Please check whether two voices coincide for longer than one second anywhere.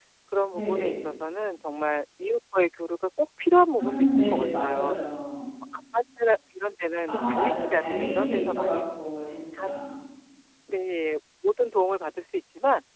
Yes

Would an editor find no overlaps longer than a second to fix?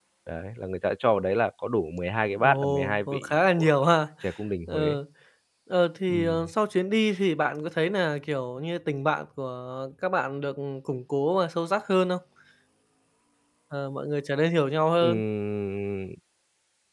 No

